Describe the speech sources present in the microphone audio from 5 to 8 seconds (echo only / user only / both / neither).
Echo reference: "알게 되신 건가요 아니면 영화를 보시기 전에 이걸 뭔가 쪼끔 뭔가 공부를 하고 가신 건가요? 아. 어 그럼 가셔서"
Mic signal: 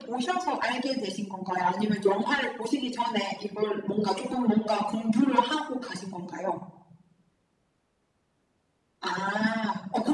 echo only